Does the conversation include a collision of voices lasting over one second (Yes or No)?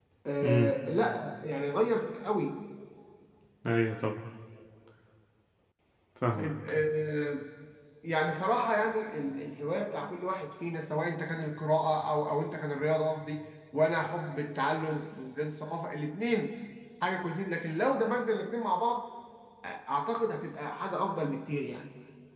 No